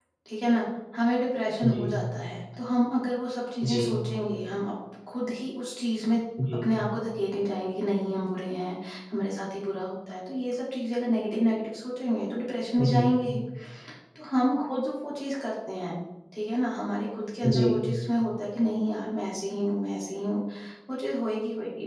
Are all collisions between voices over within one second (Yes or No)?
Yes